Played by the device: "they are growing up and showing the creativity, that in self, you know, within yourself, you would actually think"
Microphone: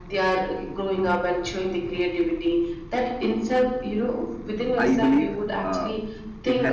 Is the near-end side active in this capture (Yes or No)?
Yes